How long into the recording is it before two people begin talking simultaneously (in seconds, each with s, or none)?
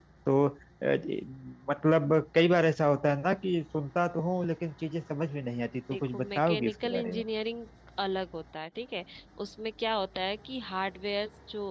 5.9 s